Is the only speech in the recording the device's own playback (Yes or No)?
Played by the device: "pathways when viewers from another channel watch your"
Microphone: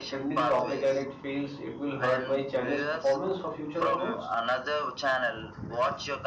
No